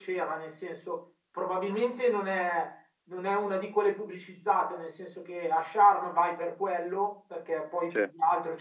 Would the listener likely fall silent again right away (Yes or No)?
Yes